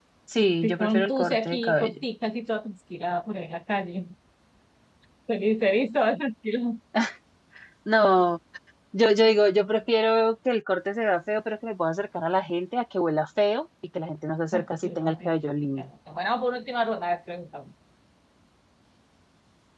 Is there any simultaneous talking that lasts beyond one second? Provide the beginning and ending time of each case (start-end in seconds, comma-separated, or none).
0.6-2.0